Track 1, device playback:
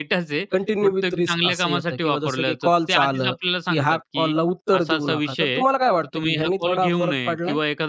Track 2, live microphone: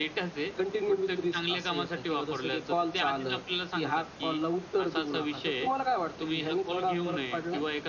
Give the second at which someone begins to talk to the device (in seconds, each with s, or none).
none